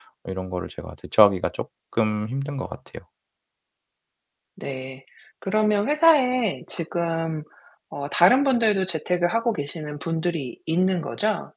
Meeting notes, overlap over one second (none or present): none